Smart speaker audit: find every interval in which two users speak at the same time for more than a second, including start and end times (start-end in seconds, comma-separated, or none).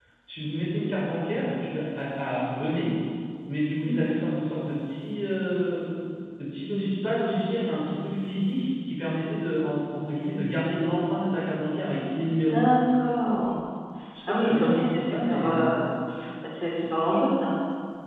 14.3-15.7